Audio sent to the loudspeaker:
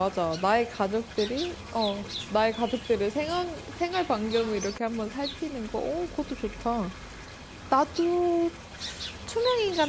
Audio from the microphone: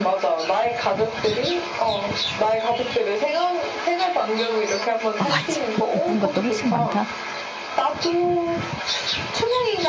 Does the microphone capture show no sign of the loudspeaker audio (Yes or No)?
No